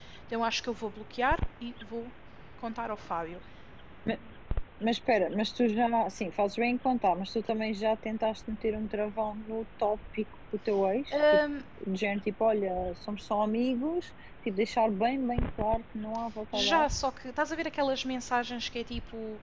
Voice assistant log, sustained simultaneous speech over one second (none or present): none